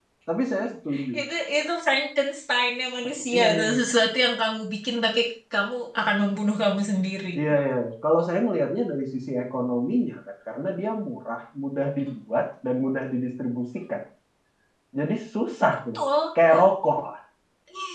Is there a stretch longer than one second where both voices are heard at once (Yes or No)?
No